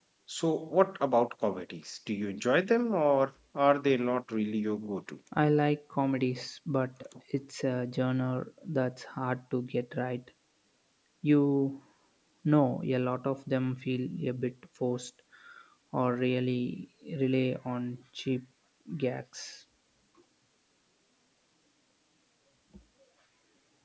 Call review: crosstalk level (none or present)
none